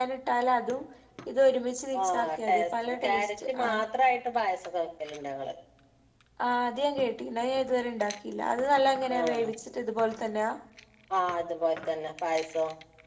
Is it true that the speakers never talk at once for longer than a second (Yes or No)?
No